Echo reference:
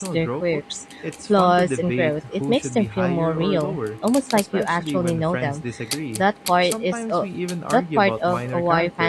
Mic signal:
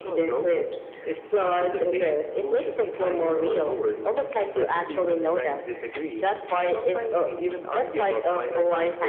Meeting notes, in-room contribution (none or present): none